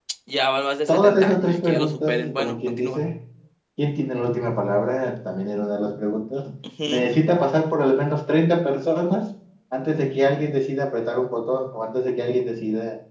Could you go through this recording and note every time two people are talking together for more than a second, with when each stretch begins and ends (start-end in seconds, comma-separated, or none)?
0.9-3.0